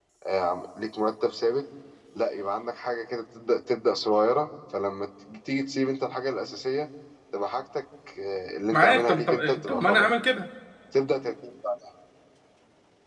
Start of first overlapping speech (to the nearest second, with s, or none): 9 s